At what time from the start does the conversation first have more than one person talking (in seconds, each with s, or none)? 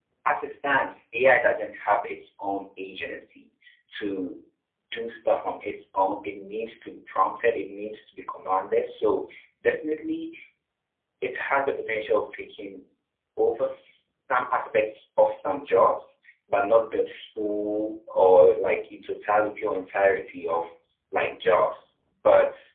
none